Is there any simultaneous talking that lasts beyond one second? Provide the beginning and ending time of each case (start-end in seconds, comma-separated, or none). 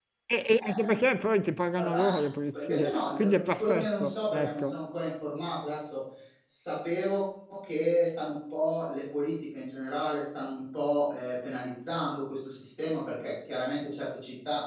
2.6-4.8